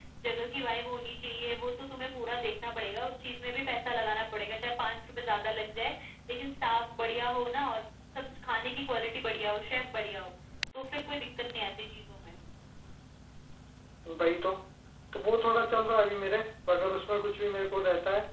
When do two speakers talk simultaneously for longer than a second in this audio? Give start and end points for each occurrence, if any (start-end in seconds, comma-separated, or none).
none